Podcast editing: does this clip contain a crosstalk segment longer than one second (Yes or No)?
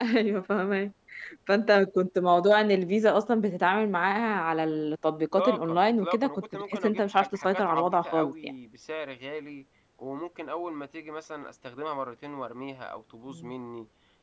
Yes